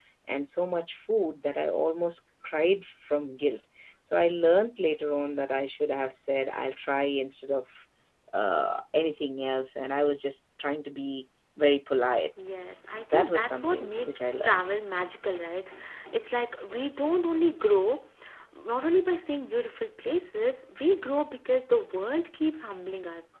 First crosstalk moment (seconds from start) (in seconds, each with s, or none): 13.1 s